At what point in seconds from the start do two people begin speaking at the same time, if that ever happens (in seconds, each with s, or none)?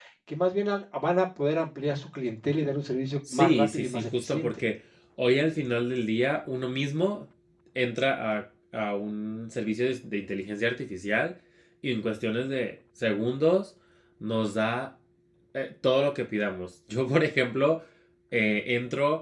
3.3 s